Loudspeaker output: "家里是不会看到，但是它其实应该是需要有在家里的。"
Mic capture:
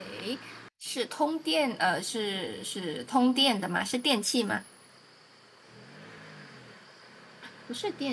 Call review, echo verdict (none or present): none